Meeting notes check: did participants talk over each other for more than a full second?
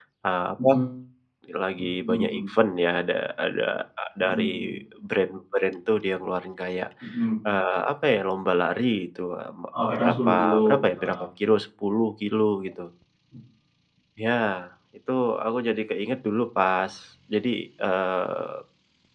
Yes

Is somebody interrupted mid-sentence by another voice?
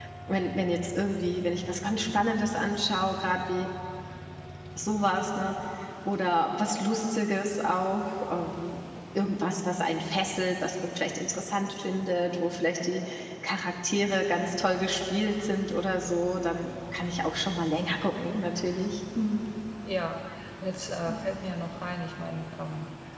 No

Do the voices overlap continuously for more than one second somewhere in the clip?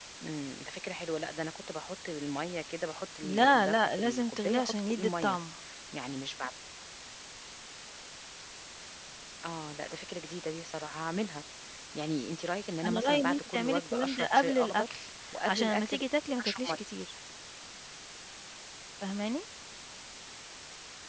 Yes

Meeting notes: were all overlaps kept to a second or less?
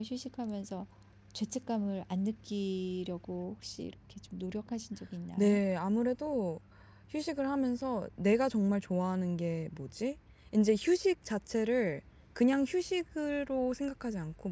Yes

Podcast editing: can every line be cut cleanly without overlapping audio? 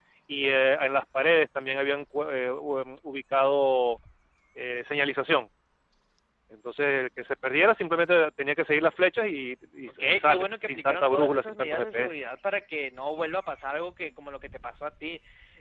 No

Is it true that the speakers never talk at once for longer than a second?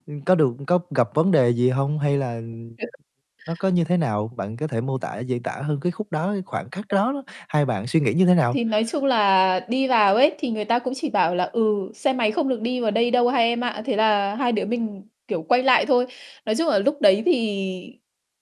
Yes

